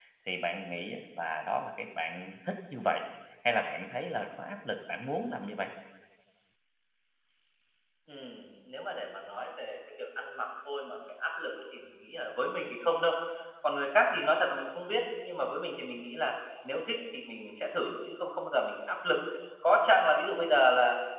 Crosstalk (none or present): none